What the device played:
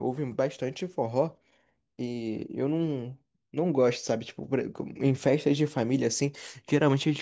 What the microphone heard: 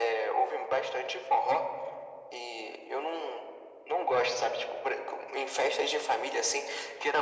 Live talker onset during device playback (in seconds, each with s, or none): none